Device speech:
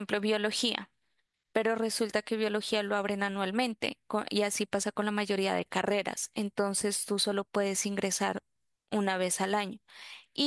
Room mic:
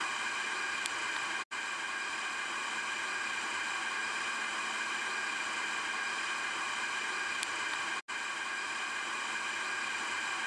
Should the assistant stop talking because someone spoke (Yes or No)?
No